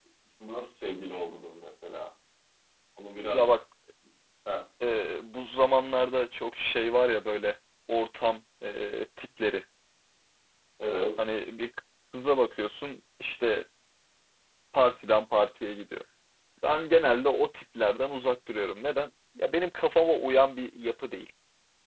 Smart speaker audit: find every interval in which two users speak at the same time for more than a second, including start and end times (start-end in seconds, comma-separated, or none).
none